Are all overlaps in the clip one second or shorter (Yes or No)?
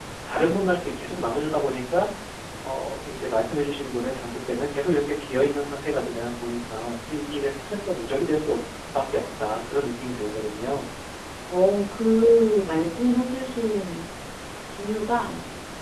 Yes